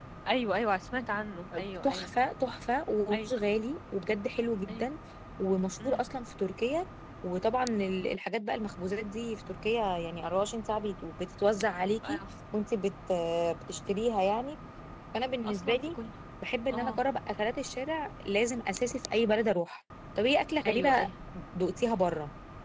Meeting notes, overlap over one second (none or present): none